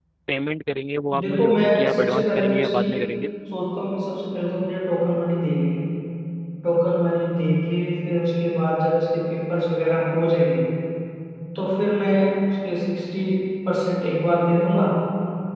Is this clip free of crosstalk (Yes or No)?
No